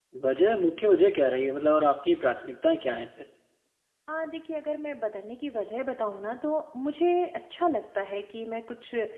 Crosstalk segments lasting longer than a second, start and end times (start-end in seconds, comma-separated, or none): none